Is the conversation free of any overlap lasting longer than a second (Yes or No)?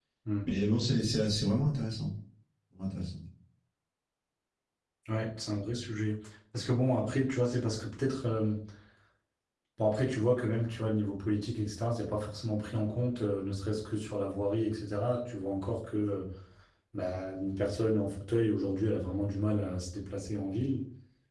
Yes